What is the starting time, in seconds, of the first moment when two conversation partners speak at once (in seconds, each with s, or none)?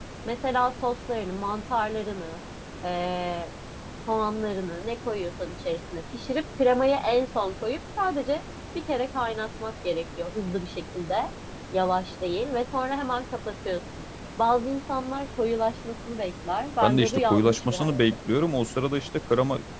16.8 s